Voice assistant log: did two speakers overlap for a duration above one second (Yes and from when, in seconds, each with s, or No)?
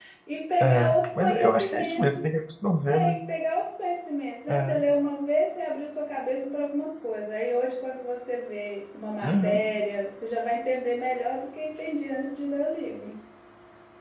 Yes, from 0.6 s